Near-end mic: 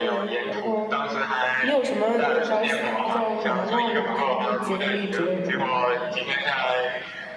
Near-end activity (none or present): present